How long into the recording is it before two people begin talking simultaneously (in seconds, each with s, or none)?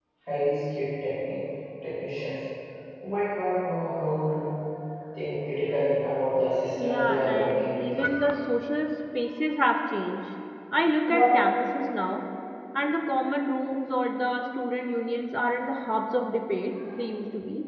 6.8 s